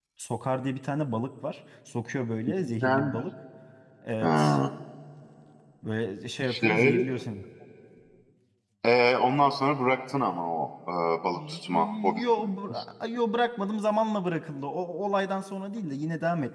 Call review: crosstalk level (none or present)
present